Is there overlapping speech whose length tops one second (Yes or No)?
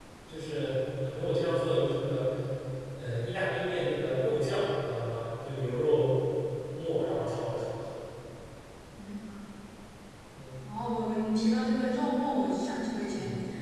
No